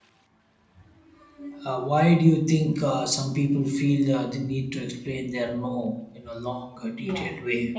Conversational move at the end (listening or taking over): taking over